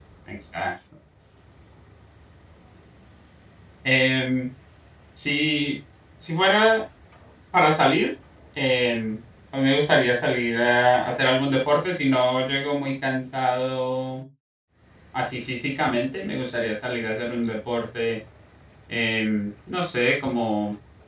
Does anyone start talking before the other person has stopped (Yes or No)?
No